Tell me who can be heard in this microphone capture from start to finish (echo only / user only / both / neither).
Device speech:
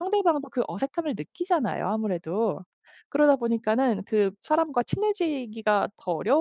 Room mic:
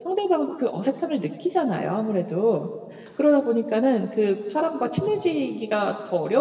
echo only